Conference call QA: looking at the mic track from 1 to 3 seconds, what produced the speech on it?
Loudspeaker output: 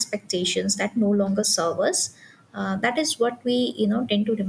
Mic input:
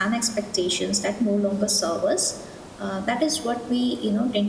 echo only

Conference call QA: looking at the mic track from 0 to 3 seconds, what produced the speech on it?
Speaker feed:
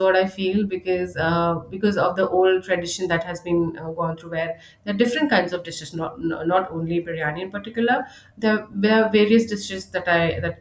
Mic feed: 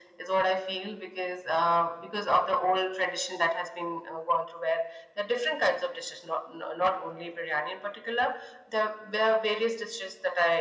echo only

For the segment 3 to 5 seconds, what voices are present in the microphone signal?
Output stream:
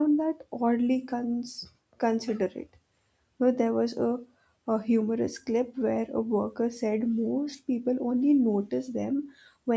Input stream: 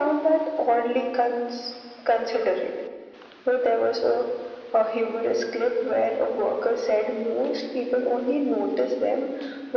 echo only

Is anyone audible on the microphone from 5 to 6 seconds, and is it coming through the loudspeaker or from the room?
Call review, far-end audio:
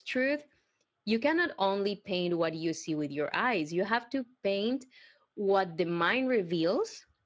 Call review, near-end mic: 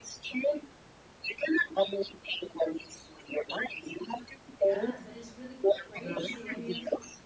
both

